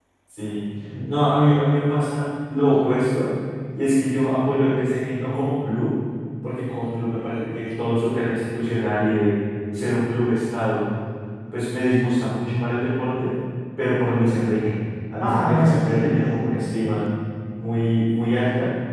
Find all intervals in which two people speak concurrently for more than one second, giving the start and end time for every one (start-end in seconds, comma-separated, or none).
15.2-16.5